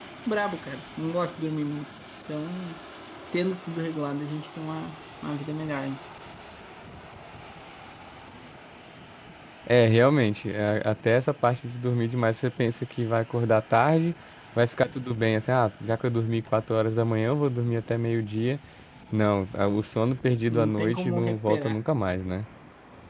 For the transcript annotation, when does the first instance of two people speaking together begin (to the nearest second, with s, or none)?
20 s